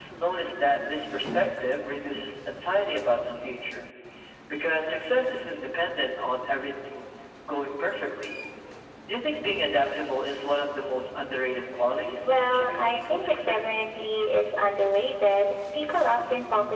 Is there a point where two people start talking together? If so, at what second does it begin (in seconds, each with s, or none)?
12.2 s